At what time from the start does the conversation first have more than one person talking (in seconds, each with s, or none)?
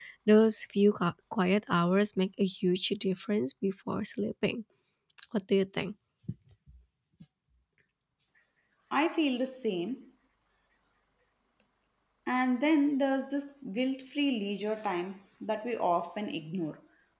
none